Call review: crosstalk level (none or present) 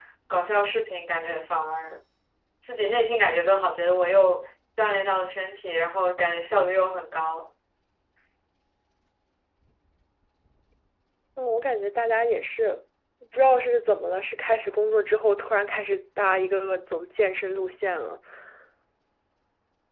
none